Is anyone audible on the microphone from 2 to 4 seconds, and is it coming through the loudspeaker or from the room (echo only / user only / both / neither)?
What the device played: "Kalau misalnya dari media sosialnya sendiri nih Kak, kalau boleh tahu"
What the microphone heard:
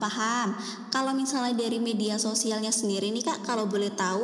echo only